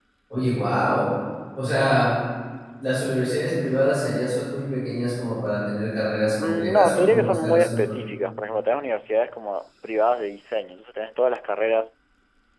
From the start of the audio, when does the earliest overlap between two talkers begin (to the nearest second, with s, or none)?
6 s